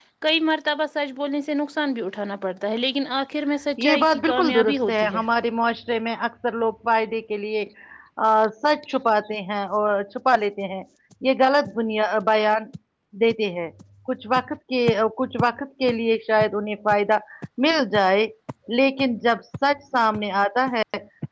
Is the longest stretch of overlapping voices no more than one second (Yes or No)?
No